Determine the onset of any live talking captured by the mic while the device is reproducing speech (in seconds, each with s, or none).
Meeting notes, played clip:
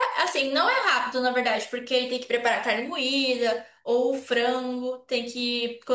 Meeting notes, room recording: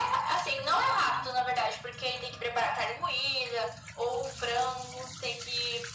none